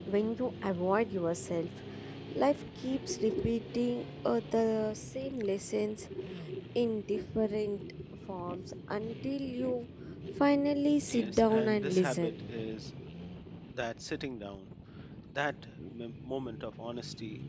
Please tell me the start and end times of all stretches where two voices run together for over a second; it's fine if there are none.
11.1-12.3

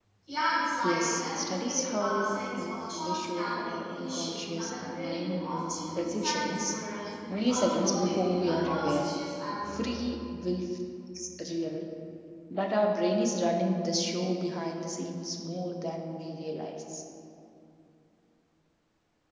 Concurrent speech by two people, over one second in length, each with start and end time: 0.8-6.8, 7.3-9.0

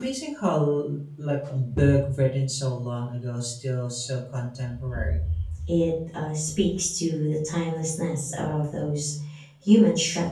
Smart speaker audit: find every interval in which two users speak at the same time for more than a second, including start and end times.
none

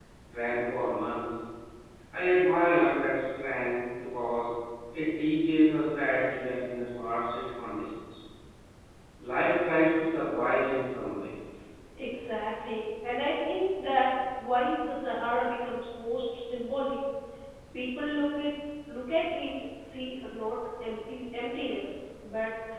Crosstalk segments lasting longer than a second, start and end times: none

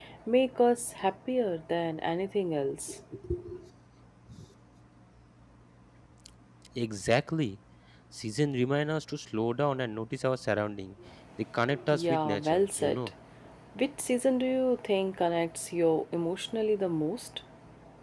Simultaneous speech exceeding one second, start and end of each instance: 11.9-13.1

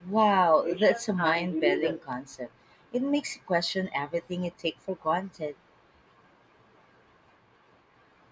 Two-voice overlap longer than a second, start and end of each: 0.6-2.0

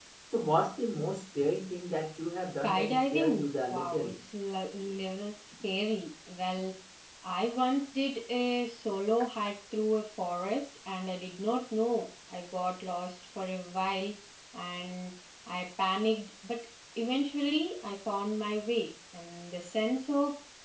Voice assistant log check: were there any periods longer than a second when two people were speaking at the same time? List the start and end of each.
2.6-4.1

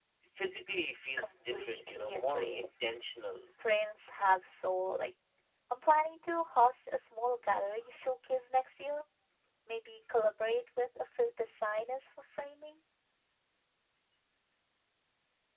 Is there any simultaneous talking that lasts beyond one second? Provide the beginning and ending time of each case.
1.2-2.6

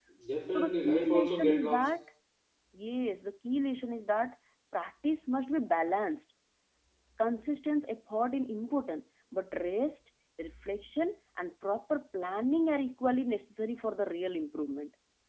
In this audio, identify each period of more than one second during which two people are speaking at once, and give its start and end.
0.5-1.8

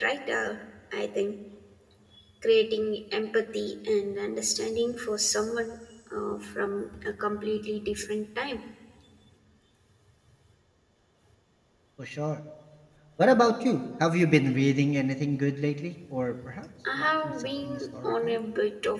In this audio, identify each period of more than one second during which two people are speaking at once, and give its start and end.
16.9-18.4

